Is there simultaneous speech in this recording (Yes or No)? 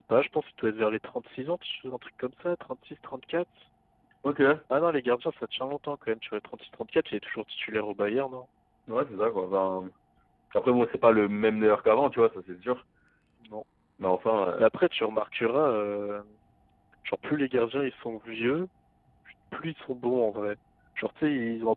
No